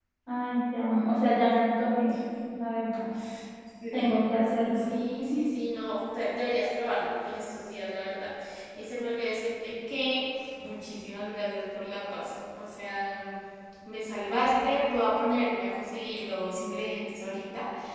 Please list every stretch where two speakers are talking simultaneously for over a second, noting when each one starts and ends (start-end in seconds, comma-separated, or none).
none